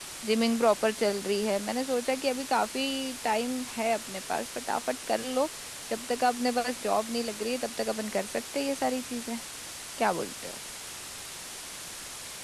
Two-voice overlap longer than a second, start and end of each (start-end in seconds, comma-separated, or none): none